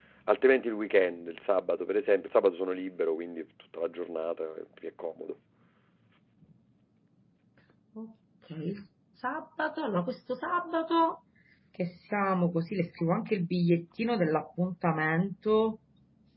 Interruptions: none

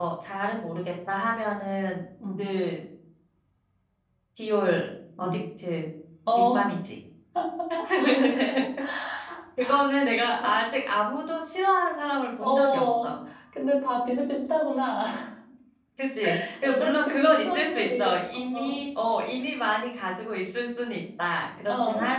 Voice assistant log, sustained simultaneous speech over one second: present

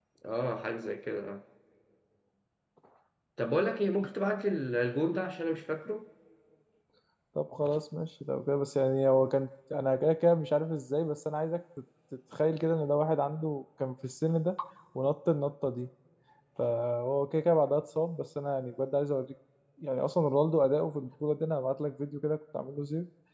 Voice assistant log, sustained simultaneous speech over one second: none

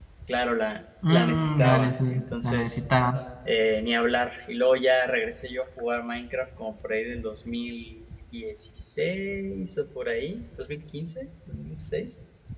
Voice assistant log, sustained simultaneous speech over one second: present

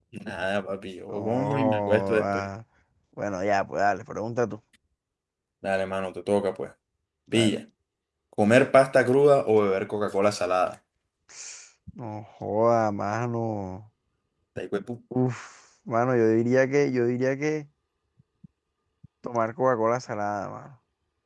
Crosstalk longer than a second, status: present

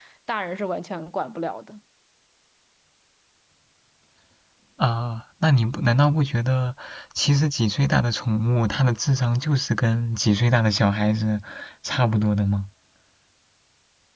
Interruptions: none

